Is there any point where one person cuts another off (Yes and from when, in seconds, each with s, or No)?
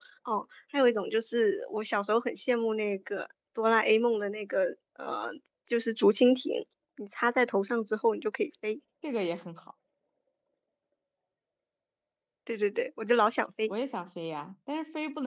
No